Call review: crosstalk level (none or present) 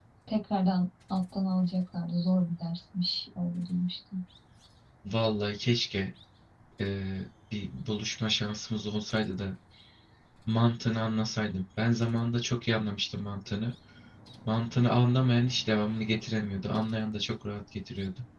none